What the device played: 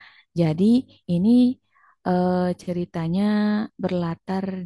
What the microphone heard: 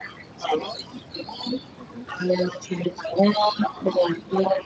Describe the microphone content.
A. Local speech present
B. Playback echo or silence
B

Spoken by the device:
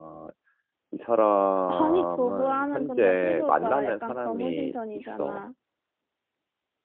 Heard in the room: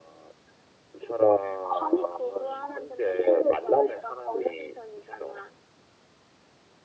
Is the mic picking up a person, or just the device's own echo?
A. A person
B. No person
B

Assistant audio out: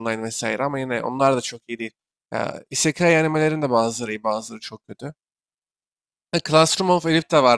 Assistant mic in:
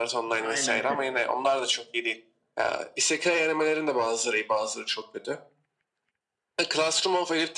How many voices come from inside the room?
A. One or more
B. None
A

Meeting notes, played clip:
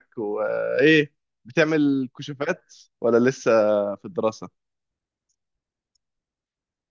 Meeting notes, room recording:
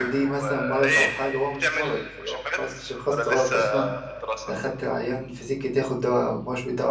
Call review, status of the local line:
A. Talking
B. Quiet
A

